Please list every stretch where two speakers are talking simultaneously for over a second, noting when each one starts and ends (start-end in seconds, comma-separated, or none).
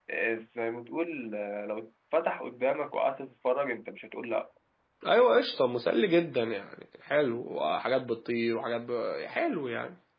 none